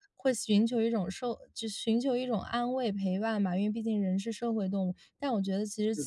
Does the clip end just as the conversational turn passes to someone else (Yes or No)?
No